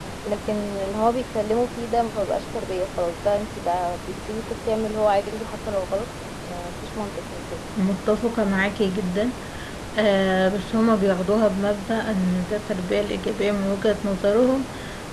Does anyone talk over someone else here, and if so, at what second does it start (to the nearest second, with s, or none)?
none